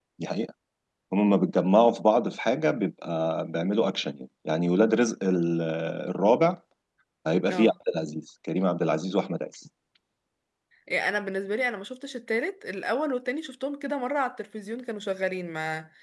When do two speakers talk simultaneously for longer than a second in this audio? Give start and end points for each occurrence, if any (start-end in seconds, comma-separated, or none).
none